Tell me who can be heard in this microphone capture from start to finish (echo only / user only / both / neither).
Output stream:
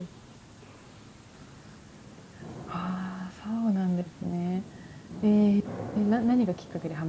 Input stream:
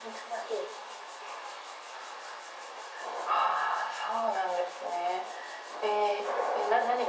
echo only